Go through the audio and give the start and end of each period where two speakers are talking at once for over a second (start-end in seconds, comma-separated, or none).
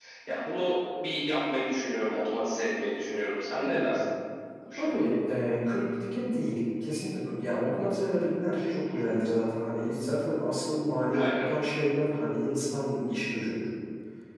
none